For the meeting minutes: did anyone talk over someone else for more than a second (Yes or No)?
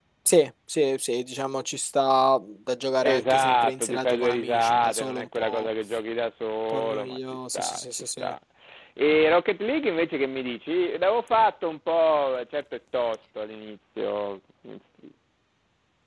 Yes